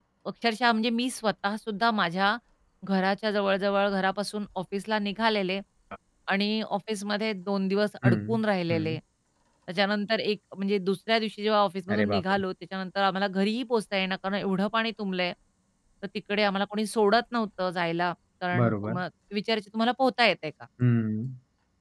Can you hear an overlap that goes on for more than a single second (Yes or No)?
No